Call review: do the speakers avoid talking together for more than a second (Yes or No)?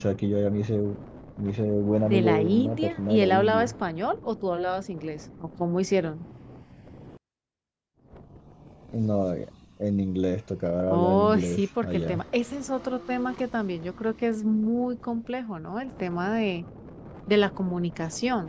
No